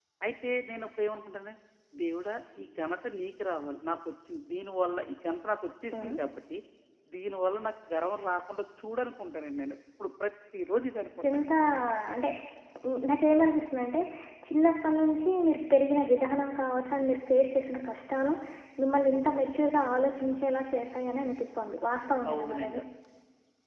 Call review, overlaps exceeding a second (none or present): none